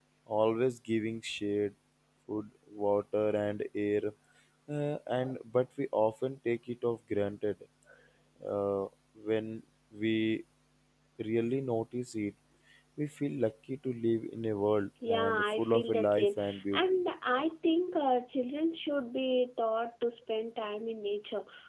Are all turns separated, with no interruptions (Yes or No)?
No